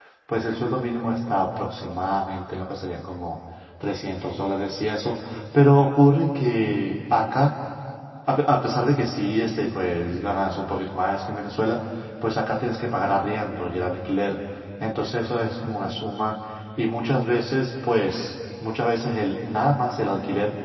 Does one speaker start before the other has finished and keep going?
No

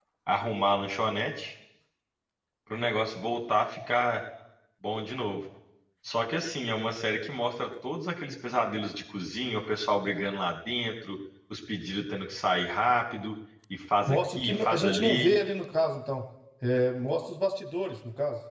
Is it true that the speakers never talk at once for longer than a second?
No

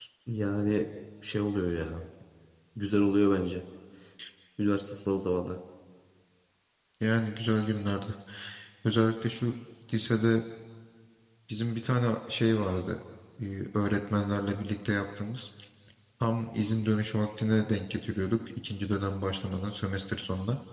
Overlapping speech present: No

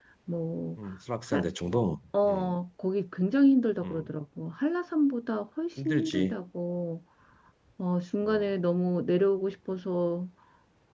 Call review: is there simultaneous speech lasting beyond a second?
No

